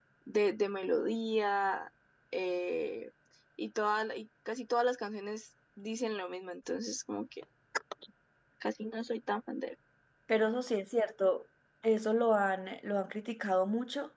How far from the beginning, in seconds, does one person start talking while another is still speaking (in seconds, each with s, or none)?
none